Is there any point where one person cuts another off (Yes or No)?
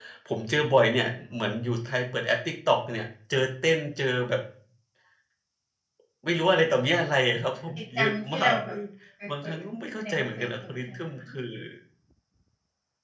Yes